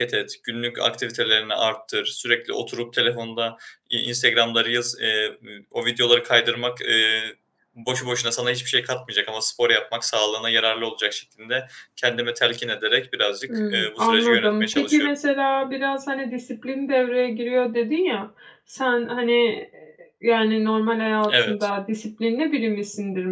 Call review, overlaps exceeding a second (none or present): present